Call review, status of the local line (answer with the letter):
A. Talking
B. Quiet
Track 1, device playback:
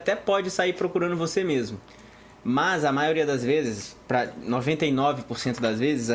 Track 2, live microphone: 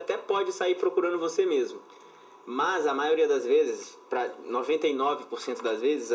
B